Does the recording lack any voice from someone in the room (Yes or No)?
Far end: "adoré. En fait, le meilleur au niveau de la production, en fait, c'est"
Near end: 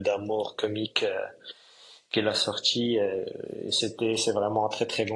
No